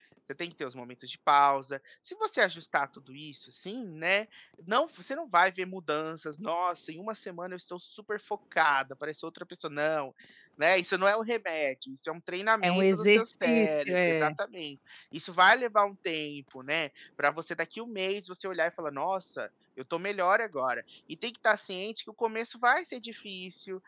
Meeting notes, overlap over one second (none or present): present